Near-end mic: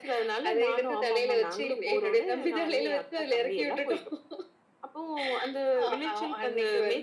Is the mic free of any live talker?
Yes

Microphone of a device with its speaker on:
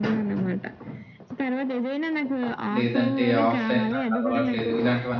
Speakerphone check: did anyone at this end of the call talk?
Yes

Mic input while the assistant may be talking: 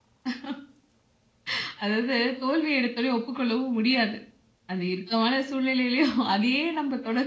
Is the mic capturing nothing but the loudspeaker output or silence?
No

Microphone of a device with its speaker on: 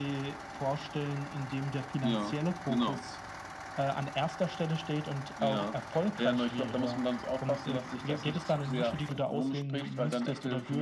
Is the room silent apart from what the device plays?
Yes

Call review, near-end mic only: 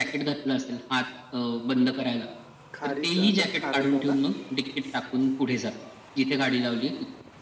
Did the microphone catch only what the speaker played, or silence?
No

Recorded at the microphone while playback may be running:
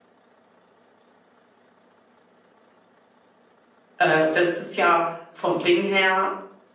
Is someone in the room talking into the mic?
Yes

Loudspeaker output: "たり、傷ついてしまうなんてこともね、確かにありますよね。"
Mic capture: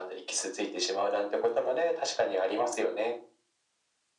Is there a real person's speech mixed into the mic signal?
No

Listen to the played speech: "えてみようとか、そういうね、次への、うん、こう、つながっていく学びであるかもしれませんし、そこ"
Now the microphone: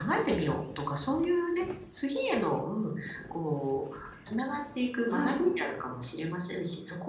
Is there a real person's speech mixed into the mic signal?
Yes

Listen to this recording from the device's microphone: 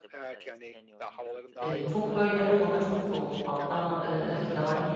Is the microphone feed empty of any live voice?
No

